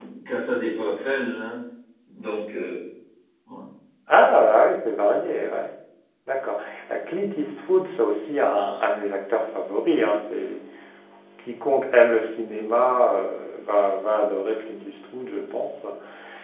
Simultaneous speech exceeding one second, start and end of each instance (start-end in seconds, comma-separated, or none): none